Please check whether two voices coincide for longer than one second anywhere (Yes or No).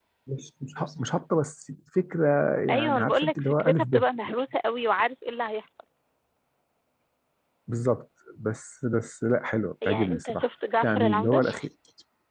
Yes